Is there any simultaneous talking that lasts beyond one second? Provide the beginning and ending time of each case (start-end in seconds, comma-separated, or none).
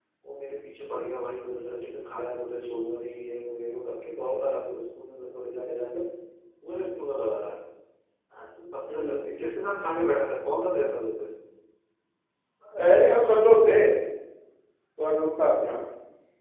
none